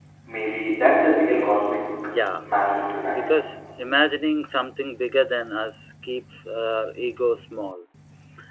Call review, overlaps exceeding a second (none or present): none